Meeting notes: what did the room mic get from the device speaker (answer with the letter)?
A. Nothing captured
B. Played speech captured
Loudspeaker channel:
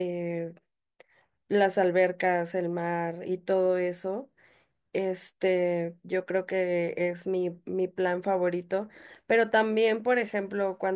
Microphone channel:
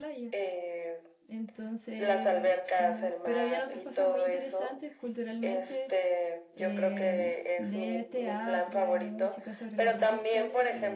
B